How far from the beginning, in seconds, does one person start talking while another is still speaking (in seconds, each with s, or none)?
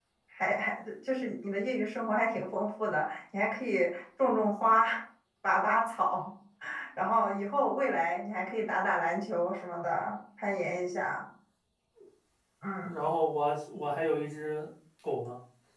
none